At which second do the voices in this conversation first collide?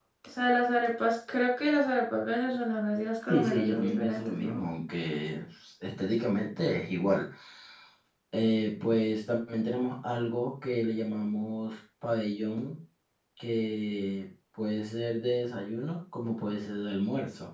3.3 s

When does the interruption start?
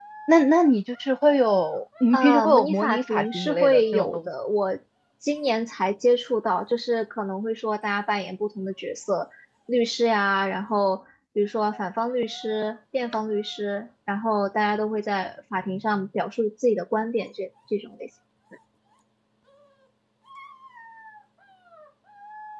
2.1 s

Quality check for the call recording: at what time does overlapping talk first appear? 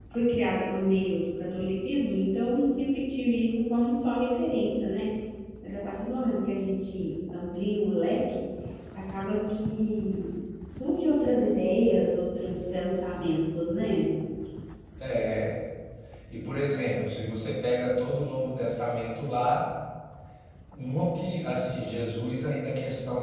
none

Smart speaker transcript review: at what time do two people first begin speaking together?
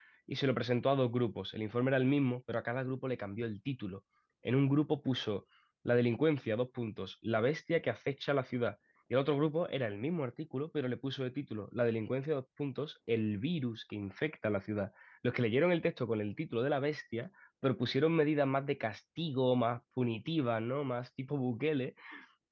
none

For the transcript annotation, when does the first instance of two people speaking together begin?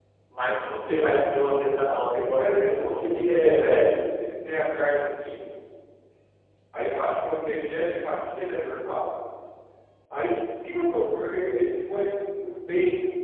2.4 s

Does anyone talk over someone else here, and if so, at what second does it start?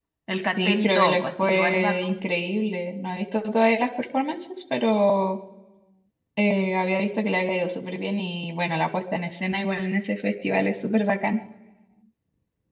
0.6 s

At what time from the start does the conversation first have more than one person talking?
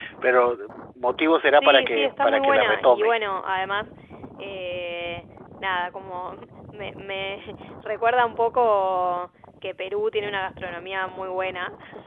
1.5 s

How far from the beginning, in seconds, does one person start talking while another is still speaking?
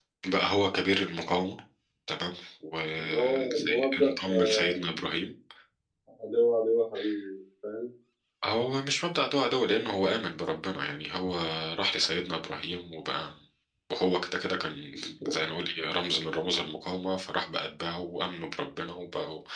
3.0 s

